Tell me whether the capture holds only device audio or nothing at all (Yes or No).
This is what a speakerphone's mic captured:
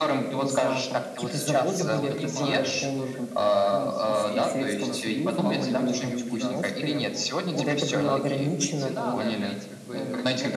No